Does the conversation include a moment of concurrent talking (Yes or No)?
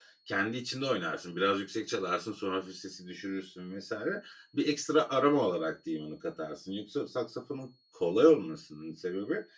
No